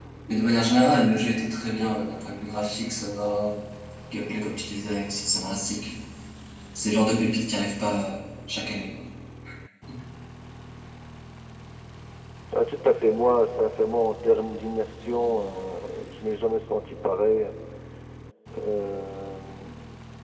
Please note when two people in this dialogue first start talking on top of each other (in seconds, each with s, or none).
none